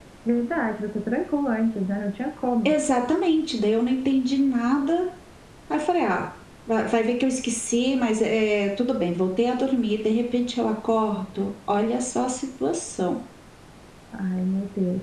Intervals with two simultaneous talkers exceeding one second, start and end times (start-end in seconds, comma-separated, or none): none